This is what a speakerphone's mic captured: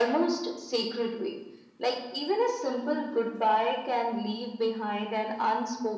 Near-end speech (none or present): none